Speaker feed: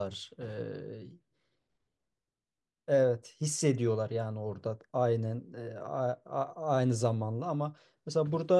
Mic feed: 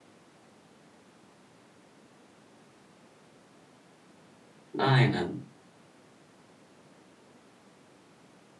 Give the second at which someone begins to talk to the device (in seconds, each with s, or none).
4.8 s